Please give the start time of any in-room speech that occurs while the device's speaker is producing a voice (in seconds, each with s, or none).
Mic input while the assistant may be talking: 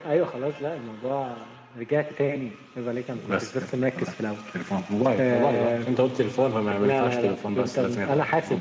none